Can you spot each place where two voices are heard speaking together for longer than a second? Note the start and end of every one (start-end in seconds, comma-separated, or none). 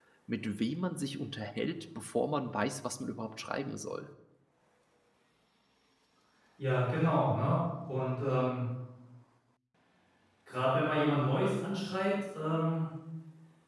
none